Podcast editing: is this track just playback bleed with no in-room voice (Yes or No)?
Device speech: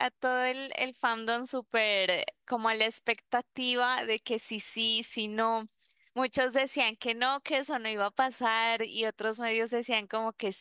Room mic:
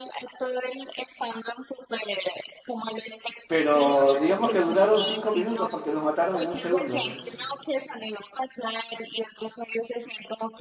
No